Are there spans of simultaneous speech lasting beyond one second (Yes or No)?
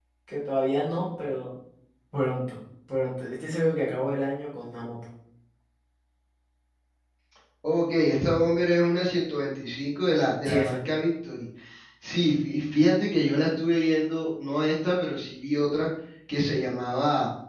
No